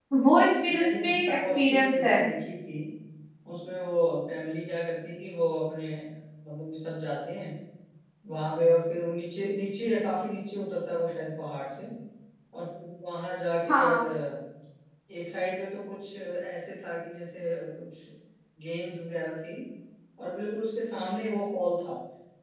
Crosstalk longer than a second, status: present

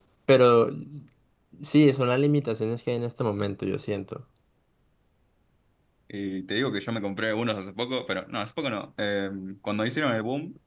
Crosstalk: none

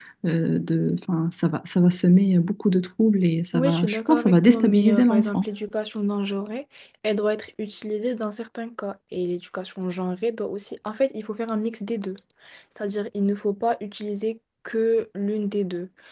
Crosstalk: present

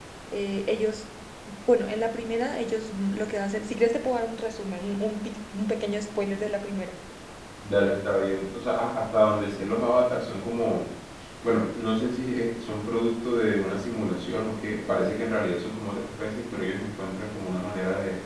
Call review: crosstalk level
none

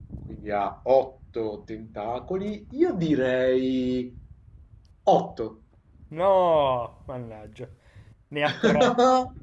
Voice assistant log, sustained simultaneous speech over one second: none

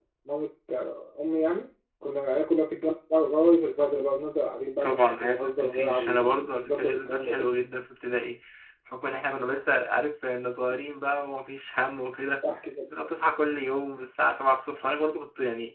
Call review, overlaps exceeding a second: present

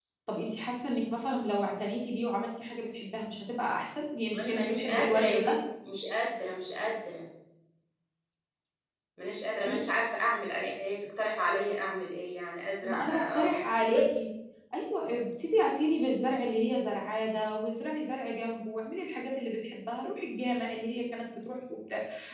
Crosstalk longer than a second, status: present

